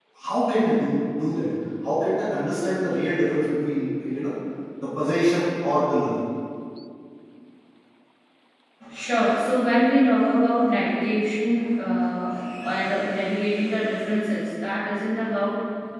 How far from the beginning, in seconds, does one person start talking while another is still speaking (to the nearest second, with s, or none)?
none